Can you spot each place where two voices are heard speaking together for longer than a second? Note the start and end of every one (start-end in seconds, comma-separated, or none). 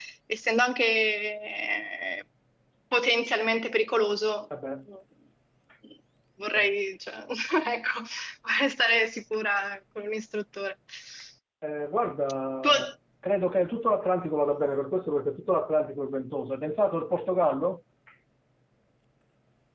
none